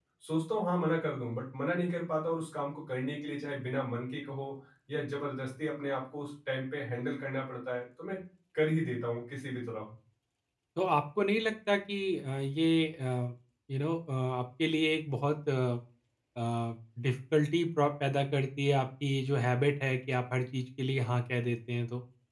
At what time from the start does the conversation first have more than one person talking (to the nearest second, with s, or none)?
none